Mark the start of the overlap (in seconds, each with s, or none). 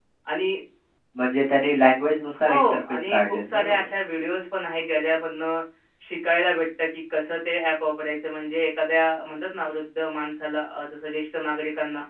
2.5 s